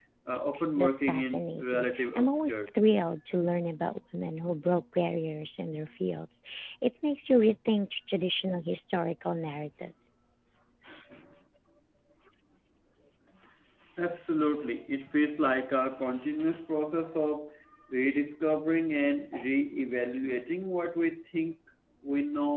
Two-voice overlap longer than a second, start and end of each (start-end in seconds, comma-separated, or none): 0.8-2.6